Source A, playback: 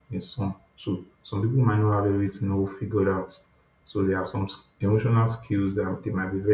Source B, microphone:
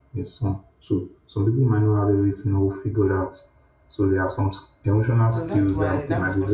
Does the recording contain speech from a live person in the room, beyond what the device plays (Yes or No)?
Yes